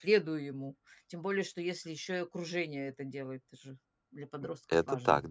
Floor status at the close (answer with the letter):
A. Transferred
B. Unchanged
A